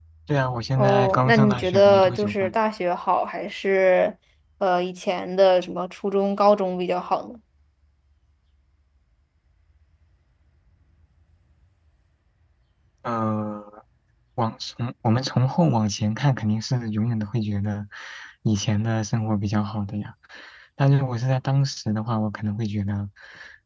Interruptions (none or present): present